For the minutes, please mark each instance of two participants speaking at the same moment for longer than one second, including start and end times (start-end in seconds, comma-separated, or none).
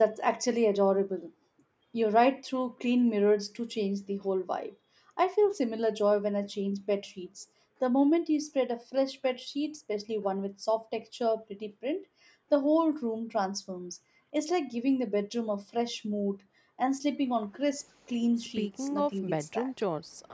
18.4-19.7